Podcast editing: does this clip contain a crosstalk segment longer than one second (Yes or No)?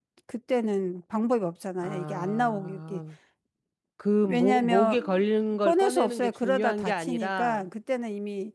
Yes